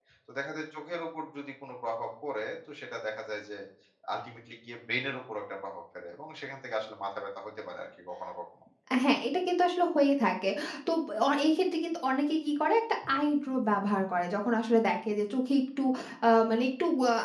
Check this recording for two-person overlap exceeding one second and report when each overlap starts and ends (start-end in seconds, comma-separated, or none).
none